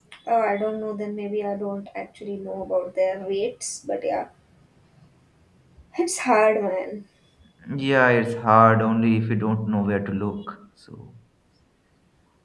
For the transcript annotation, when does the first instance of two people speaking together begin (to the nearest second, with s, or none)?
none